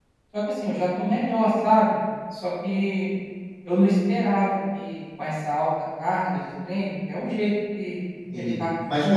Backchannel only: No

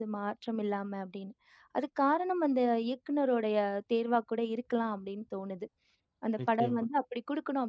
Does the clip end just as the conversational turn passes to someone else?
No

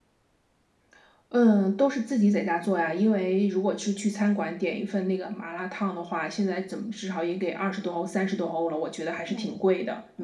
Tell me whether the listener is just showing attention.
No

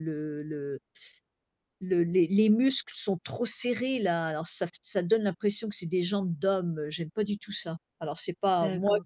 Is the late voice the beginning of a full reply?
Yes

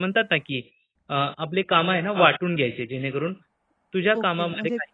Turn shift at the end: Yes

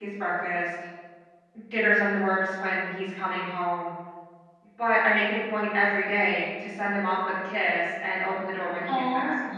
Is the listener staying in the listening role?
No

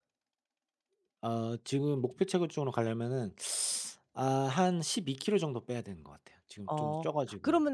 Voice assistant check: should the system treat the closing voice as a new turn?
Yes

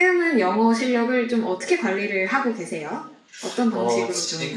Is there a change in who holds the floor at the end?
Yes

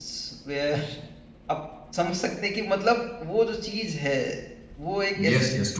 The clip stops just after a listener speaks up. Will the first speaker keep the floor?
No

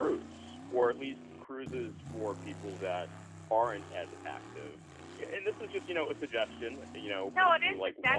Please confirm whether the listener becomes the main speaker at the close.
Yes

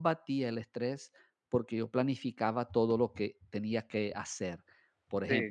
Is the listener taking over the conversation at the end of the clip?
No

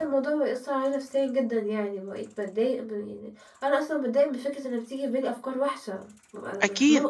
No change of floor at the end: No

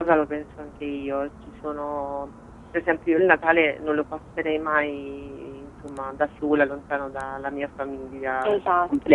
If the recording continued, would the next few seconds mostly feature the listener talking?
Yes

